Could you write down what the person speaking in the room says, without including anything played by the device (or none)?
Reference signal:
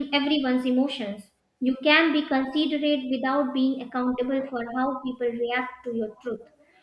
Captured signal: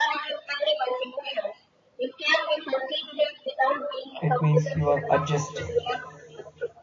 it means you are adjusting.